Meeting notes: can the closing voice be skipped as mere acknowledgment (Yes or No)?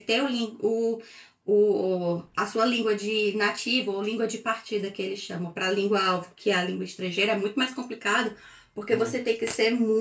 Yes